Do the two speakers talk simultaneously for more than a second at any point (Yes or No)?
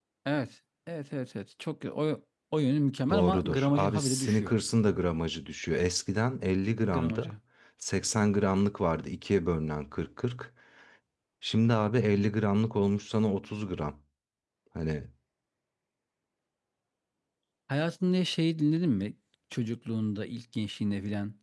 Yes